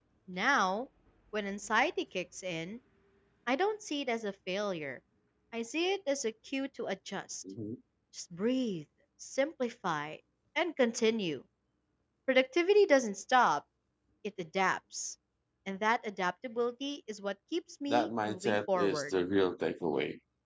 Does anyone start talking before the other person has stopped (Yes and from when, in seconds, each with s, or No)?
Yes, from 17.9 s